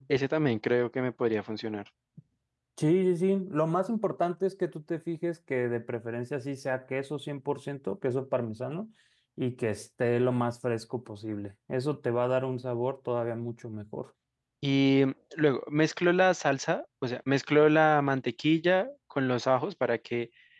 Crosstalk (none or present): none